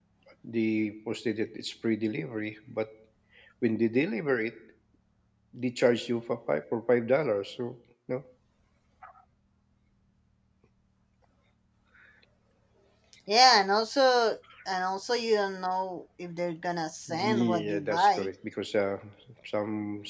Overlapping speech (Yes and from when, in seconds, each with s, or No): Yes, from 17.1 s